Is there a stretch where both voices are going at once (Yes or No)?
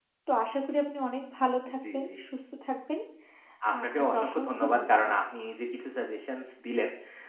Yes